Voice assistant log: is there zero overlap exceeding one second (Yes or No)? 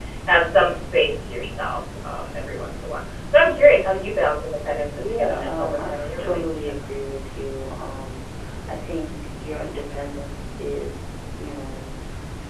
No